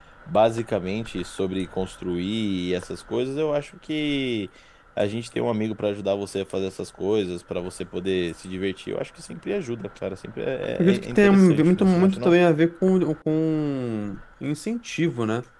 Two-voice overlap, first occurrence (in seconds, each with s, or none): 10.8 s